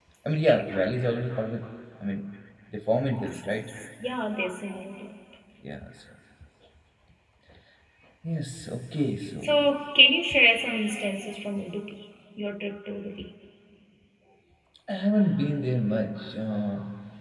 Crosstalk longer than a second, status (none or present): none